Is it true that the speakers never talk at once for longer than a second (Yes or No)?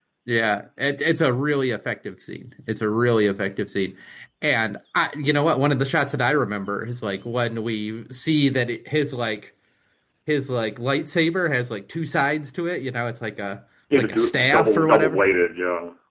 No